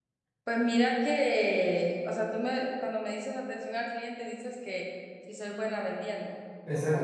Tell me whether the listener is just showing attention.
No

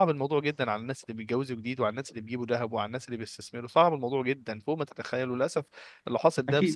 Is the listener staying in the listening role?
Yes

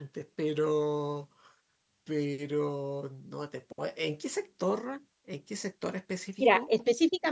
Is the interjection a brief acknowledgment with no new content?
No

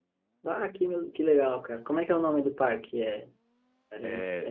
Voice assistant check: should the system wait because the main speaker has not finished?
Yes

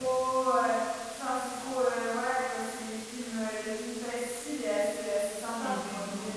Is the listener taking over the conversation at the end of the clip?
Yes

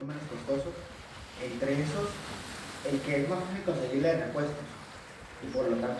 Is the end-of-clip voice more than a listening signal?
No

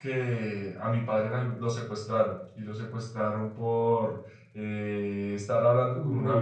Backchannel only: Yes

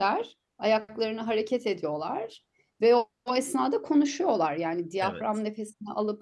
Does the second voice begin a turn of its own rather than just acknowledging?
No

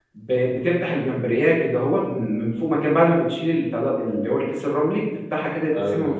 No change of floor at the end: Yes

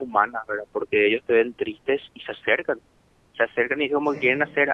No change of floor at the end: Yes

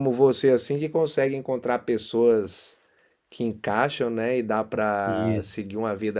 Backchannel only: Yes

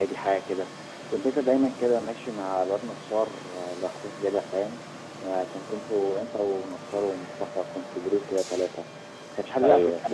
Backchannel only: Yes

